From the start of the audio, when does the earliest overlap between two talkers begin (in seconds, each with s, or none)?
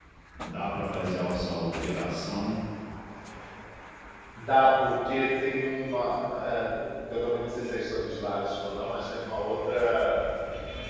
none